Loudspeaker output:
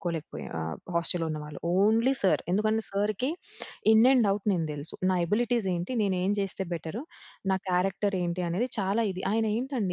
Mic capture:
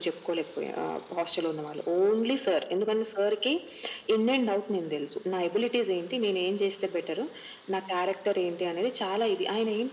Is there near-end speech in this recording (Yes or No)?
No